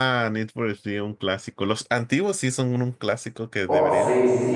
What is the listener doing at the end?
taking over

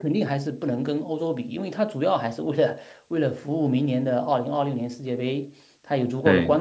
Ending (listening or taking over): listening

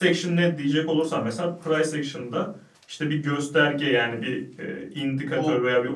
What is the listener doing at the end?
listening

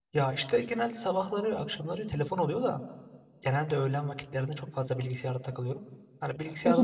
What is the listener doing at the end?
listening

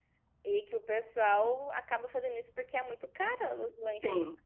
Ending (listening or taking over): taking over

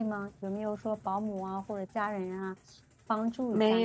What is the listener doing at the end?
taking over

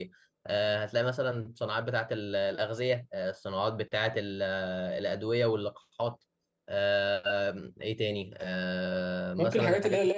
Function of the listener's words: taking over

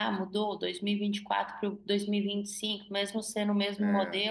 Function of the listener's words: listening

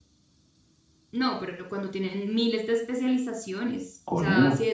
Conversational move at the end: listening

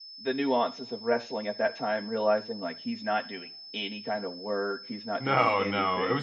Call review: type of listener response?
taking over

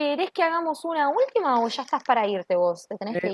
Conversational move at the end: taking over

